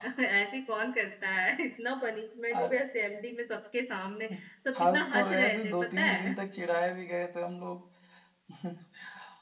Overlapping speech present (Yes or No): Yes